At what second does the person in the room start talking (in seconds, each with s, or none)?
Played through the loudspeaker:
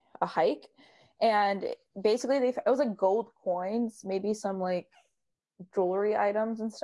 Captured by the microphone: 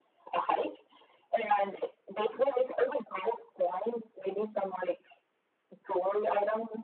none